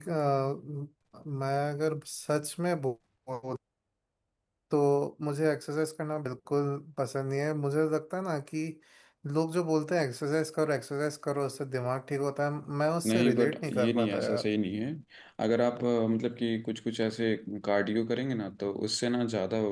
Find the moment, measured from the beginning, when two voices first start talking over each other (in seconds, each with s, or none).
13.1 s